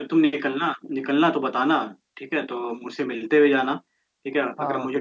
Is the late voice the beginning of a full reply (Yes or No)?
No